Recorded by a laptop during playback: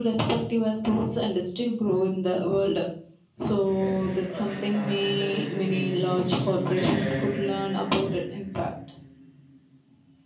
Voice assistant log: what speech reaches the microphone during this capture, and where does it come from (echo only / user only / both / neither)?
both